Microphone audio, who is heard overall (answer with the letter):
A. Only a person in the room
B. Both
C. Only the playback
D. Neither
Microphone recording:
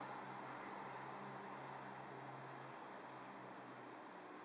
D